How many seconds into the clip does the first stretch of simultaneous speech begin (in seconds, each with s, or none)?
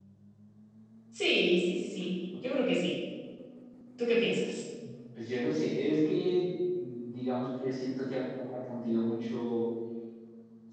none